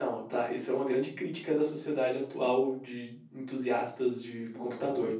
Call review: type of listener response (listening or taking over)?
taking over